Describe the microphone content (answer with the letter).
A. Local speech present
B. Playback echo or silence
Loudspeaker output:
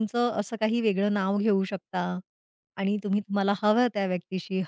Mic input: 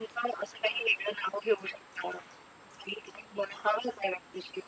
B